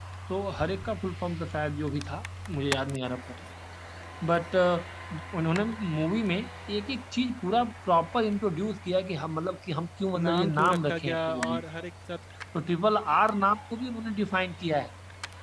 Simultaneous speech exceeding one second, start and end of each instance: 10.2-11.6

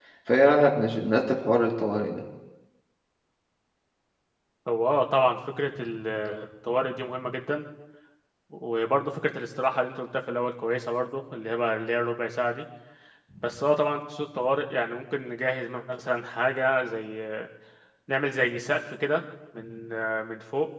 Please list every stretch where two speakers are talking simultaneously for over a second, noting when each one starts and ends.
none

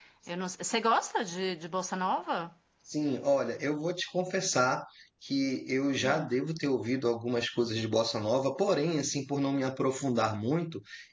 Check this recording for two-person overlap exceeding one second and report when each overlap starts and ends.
none

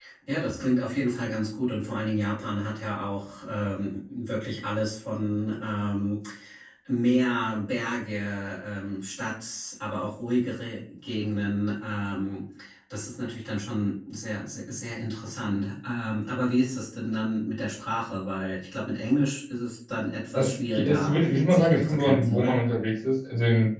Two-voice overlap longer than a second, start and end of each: 20.4-22.6

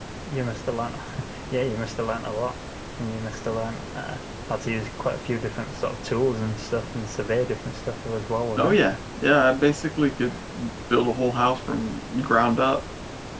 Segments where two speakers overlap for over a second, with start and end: none

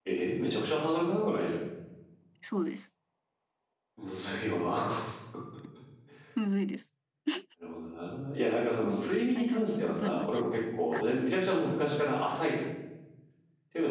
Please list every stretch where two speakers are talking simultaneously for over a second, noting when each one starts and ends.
8.8-10.4

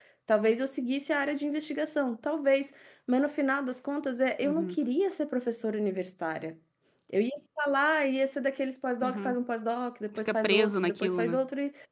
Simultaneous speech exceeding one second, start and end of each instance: 10.1-11.4

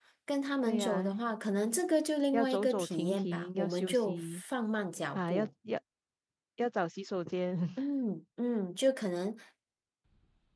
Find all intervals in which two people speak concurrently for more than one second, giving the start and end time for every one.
2.3-4.4

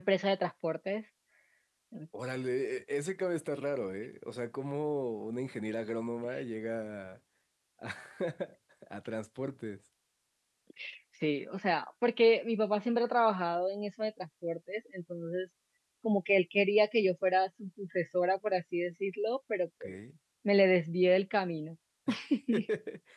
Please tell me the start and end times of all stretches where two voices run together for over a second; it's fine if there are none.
none

